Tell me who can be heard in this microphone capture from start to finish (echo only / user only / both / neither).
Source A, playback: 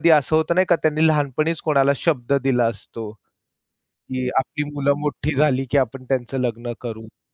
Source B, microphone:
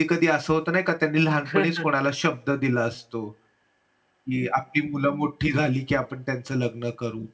both